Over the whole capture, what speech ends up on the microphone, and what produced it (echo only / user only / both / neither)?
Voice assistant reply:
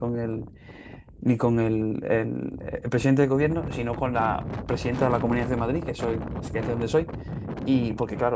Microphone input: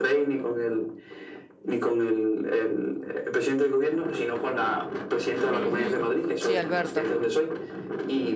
both